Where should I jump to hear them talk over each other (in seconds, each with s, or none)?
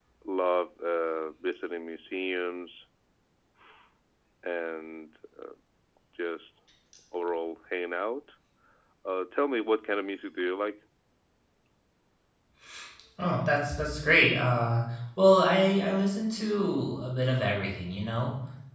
none